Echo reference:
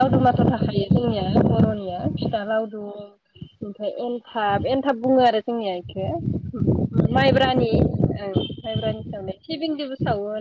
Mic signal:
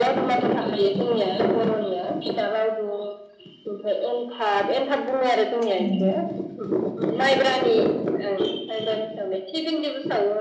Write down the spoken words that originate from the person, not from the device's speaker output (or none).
उम